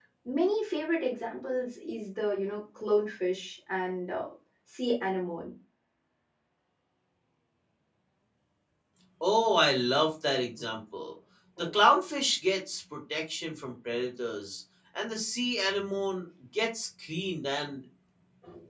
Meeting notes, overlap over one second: none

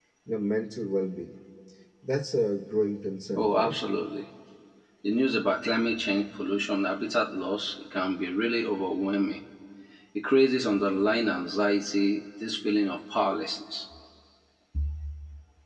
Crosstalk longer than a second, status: none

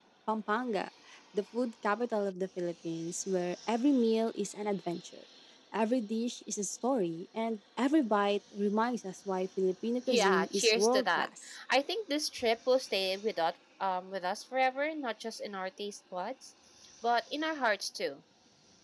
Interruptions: present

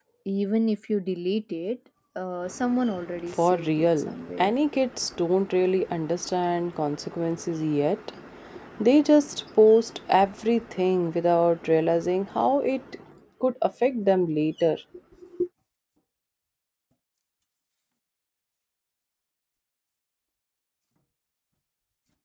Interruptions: present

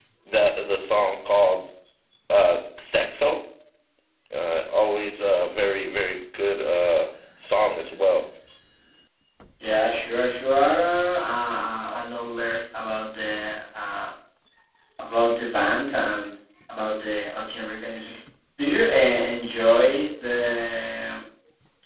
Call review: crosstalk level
none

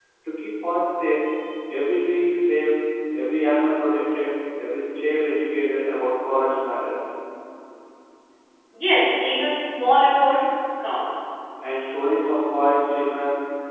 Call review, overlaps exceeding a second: none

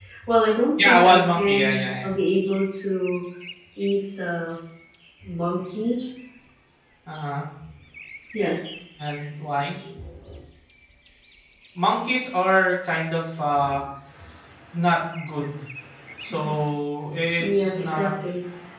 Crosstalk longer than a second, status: present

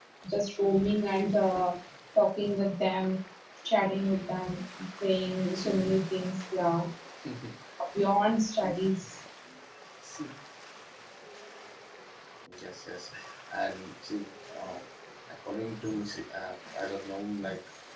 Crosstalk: none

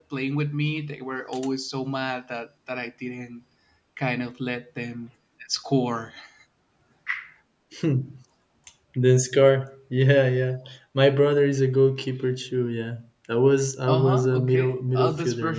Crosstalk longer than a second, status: present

